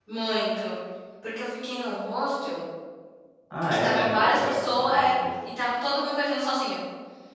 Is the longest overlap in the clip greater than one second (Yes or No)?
Yes